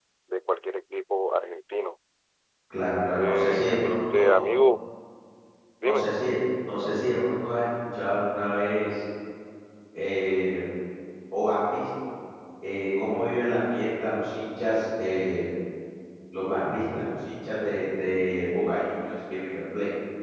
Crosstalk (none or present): present